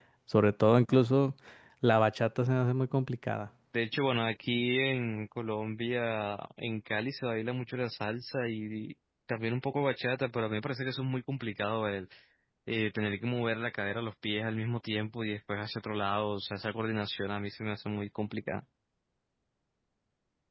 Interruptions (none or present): none